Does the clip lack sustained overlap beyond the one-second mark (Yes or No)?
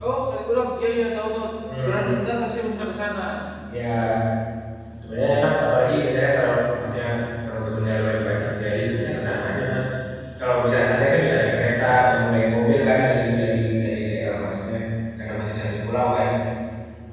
Yes